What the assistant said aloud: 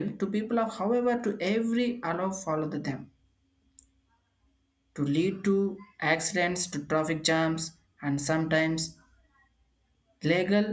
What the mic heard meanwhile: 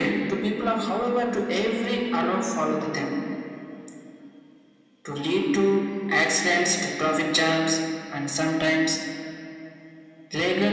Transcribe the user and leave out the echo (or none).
none